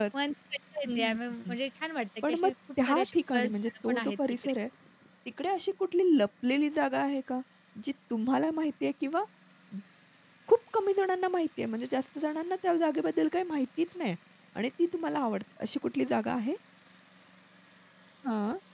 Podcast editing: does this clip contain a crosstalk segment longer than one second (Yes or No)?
Yes